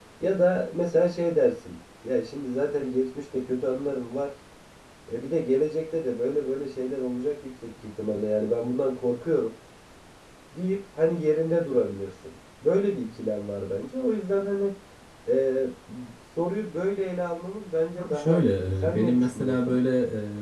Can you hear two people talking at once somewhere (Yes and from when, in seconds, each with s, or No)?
Yes, from 18.0 s